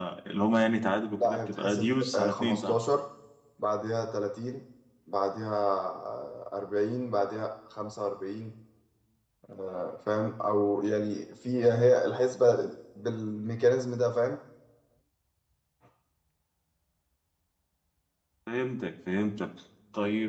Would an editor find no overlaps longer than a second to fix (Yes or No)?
No